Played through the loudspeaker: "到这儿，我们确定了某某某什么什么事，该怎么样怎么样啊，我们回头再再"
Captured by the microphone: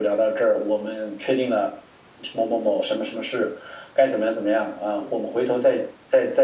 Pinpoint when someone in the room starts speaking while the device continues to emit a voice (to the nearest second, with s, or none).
none